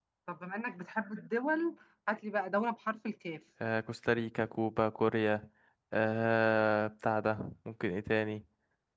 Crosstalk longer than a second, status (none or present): none